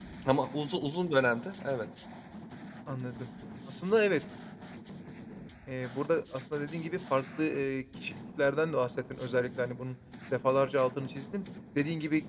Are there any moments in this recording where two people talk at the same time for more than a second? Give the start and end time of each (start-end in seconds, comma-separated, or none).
none